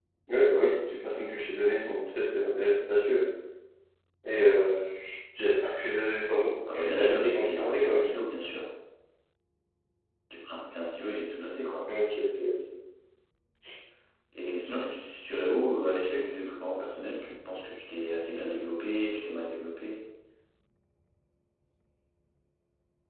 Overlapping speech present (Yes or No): Yes